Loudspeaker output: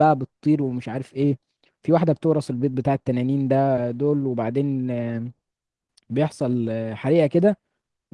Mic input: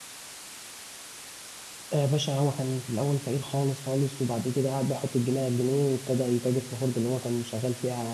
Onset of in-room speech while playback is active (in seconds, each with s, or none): 1.9 s